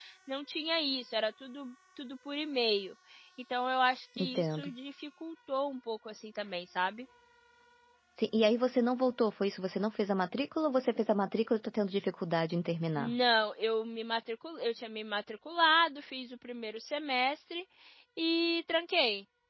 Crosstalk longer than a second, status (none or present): none